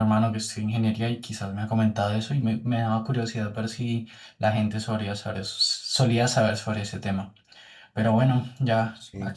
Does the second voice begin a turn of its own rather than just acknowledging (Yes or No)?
No